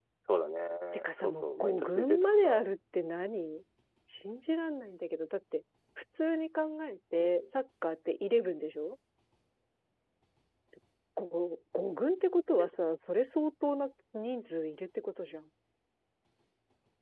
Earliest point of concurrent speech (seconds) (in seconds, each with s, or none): 0.9 s